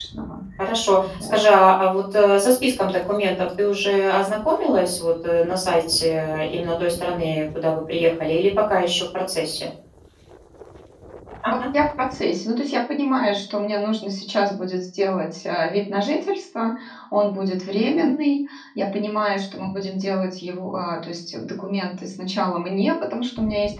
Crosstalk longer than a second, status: none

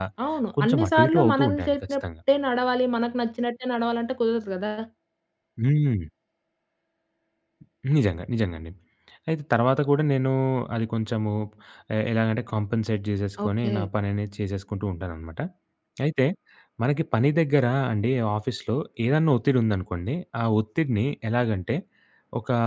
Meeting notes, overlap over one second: present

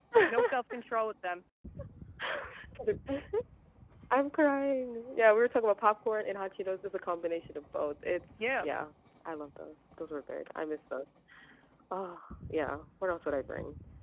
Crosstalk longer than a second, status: none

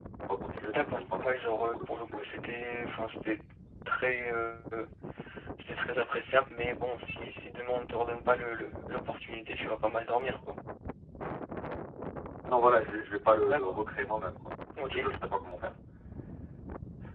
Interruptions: present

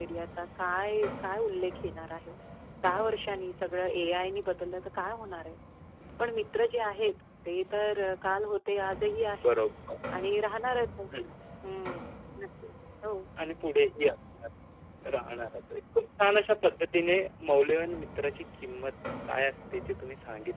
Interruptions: none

